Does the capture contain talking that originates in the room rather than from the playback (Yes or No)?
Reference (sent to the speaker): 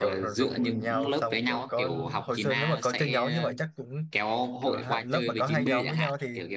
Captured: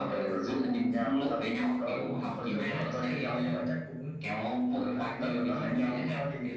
No